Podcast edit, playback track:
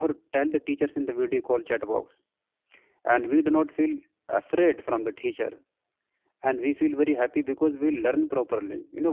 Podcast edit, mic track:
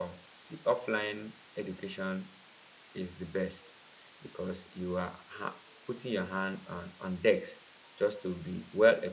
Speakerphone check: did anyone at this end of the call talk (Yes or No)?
Yes